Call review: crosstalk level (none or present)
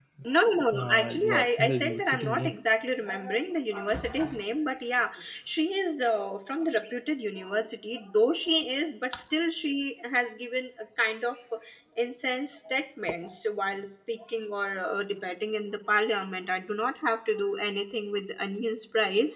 present